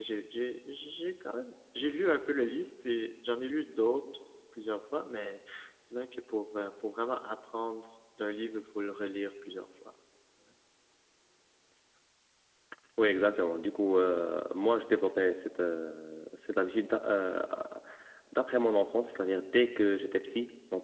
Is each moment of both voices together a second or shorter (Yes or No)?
Yes